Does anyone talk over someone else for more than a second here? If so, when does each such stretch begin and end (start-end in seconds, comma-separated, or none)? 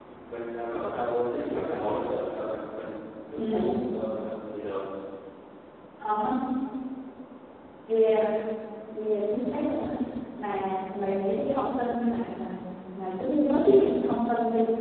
none